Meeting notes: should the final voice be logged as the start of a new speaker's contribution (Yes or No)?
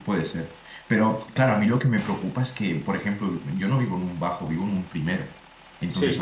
No